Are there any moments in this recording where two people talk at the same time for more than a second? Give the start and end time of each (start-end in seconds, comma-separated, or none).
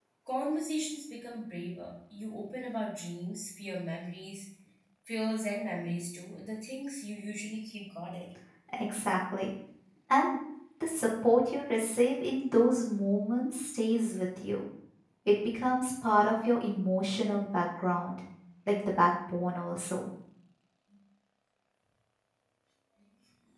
none